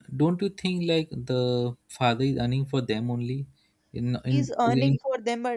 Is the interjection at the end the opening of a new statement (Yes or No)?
Yes